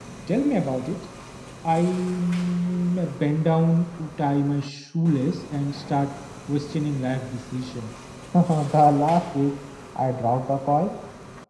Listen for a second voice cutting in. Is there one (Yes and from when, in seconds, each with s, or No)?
No